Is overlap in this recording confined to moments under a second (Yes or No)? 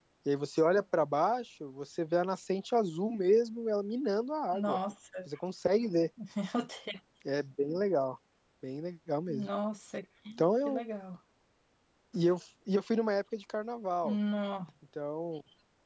Yes